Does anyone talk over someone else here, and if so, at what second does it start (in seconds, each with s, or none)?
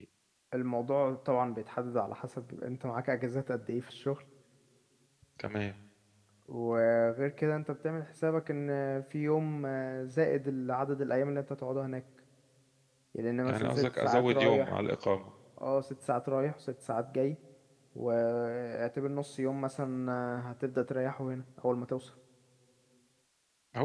13.4 s